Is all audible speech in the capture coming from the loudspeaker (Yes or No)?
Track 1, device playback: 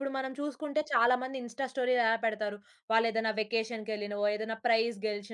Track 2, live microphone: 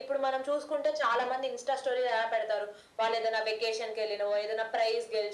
Yes